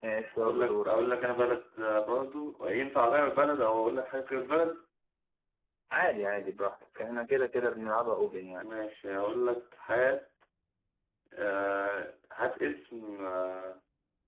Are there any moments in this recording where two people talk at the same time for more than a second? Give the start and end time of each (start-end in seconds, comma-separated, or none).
none